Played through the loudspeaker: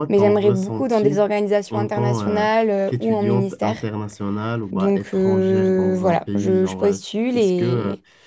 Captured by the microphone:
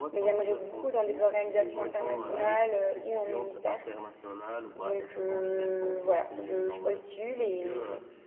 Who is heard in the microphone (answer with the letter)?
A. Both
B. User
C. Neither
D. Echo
A